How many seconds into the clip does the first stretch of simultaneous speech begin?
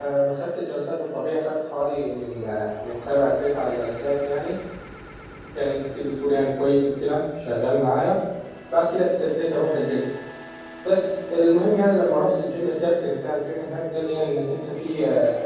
none

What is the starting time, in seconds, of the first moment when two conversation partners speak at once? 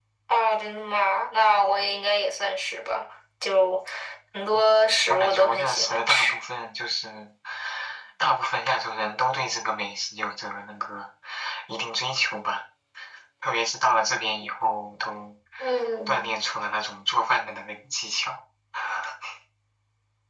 5 s

